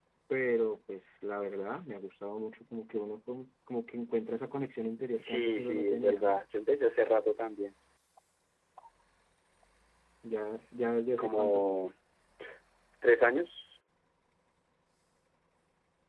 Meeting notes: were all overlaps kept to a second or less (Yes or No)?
No